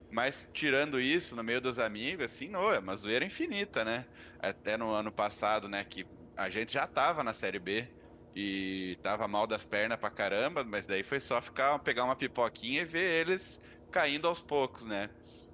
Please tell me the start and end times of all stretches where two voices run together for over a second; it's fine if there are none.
none

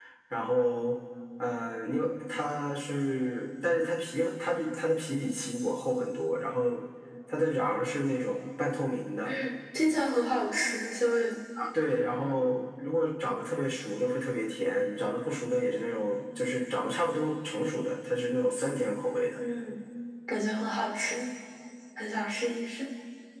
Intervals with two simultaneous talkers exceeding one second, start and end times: none

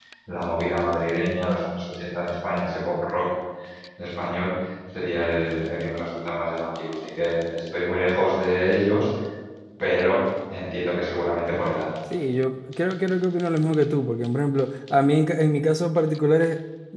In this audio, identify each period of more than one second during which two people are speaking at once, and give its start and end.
none

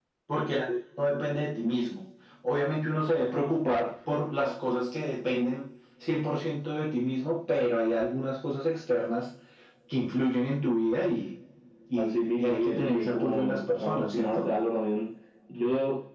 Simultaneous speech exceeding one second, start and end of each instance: 12.0-14.5

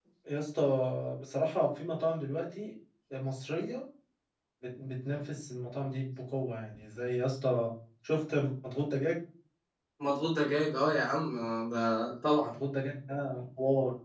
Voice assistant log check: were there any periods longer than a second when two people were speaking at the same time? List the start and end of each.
none

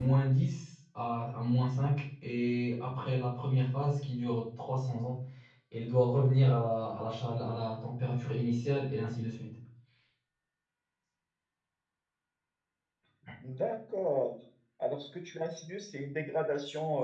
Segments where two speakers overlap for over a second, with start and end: none

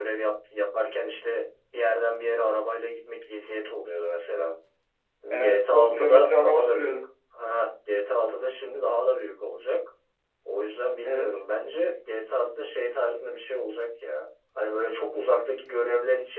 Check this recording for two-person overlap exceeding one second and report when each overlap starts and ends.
5.4-7.0

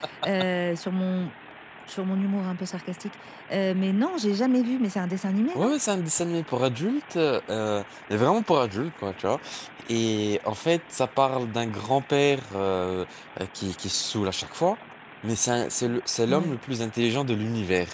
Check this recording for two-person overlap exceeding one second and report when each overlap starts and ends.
none

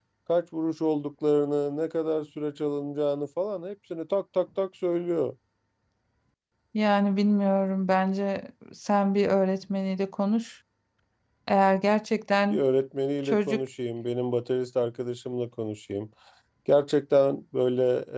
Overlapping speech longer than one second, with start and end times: none

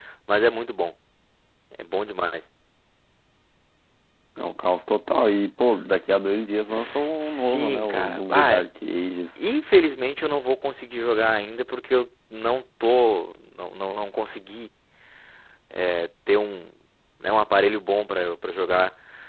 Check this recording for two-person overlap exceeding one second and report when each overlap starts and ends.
6.7-8.6

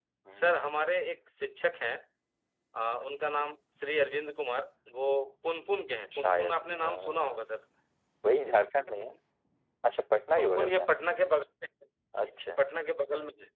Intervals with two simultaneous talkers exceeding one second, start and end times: 6.1-7.4

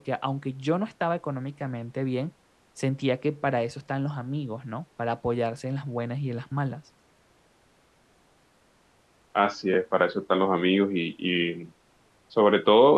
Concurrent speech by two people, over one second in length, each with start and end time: none

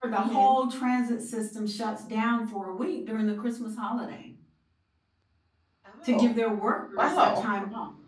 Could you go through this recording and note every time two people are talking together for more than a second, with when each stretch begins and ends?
none

